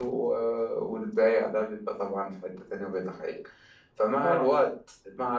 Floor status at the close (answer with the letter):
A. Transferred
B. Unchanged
B